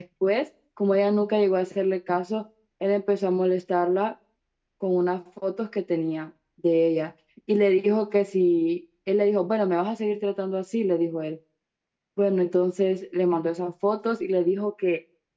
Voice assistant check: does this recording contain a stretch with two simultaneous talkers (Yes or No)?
No